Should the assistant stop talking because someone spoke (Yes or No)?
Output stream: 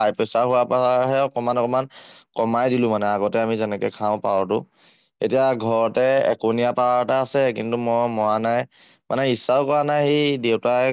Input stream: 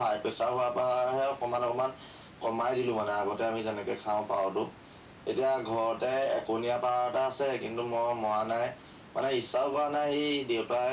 No